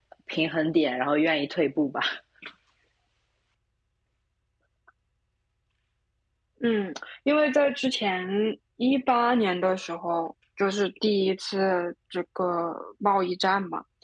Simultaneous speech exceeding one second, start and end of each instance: none

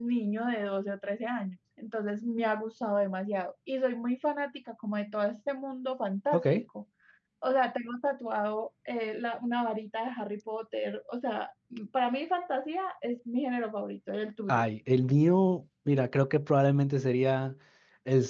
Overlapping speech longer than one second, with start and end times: none

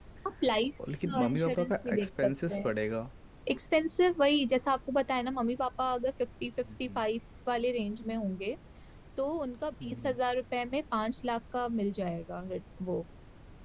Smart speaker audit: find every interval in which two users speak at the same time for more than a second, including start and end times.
1.2-2.7

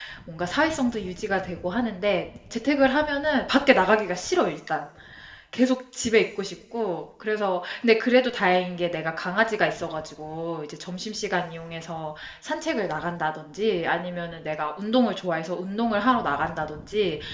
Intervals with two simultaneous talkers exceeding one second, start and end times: none

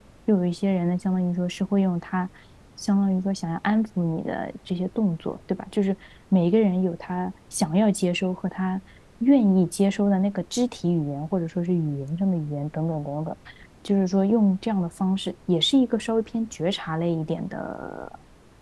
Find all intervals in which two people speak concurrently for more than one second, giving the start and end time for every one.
none

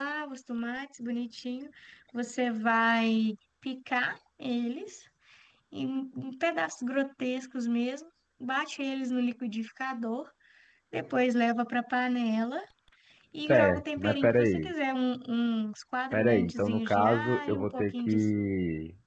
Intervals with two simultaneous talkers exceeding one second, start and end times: 13.5-14.7, 16.1-18.2

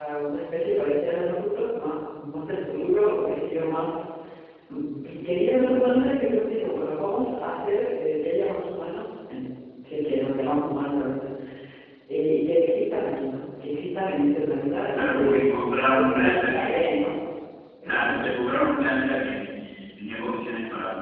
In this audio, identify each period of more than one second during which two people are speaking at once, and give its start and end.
15.0-16.9

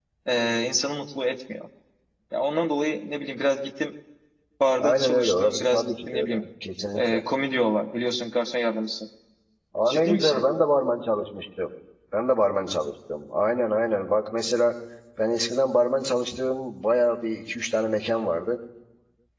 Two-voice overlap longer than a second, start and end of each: 4.8-6.4

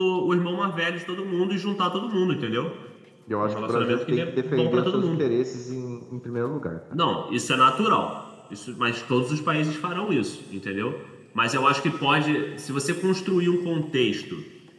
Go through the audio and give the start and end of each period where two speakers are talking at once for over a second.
3.4-5.2

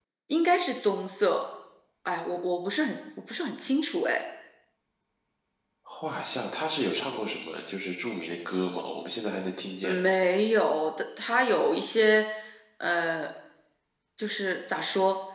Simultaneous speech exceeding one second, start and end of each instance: none

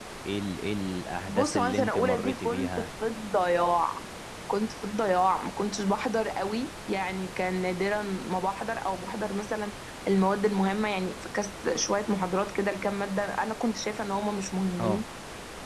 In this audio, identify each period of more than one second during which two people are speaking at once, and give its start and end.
1.3-2.9

